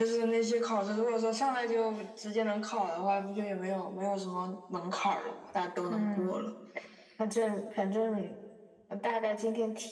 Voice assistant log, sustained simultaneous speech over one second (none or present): none